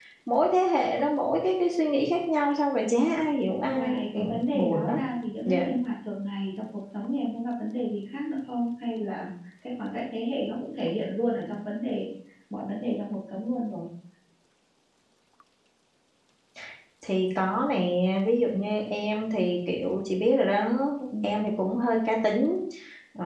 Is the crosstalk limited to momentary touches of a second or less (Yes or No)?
No